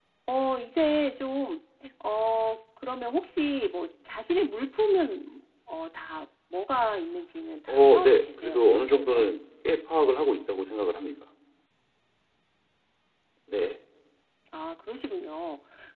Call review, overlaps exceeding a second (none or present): present